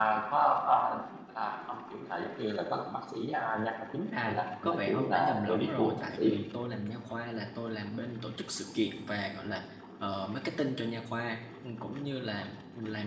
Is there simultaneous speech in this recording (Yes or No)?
Yes